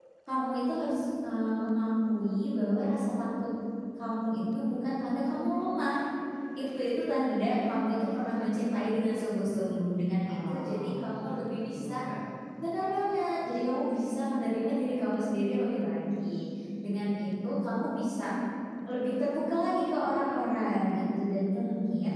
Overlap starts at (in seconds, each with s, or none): 10.3 s